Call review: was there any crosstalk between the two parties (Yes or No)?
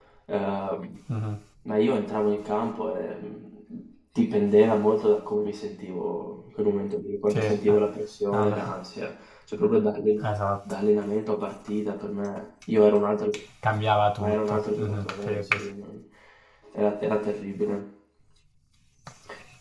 Yes